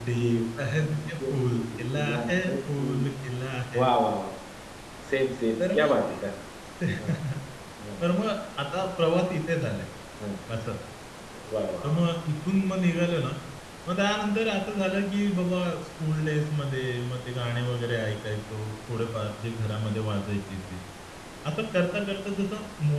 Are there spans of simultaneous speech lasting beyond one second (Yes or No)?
Yes